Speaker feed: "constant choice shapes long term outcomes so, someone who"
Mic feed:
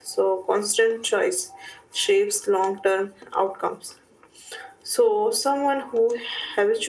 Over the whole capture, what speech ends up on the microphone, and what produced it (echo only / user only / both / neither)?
echo only